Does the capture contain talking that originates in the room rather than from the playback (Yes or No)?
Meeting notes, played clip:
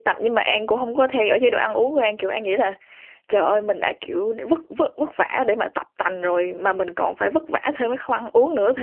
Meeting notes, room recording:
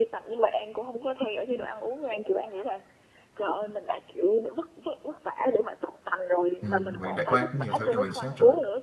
Yes